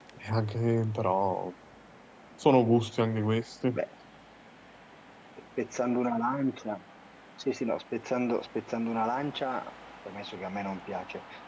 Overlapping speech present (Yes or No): No